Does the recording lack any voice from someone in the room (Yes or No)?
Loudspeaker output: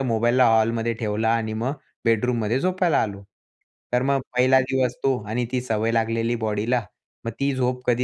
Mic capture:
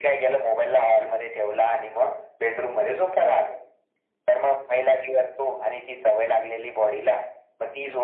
Yes